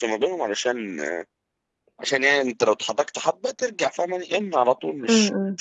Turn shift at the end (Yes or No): No